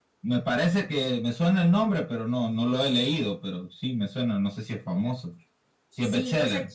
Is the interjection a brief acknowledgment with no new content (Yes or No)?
No